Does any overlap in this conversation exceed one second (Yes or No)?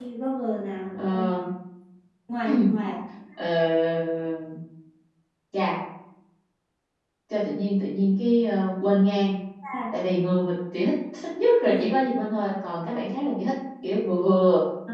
No